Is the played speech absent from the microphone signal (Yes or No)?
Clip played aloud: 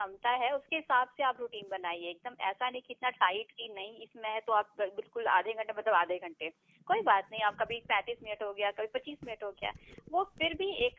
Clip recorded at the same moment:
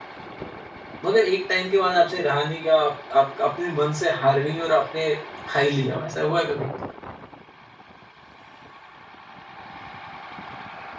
Yes